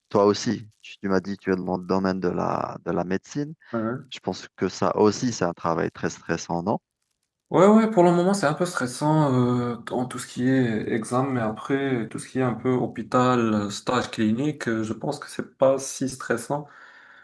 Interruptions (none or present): none